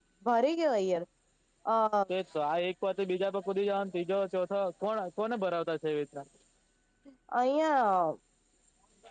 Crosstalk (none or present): none